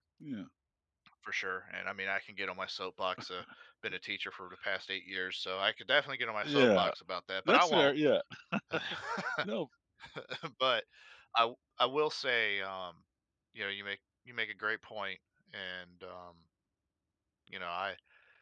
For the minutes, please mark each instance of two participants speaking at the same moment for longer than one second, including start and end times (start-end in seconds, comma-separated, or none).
none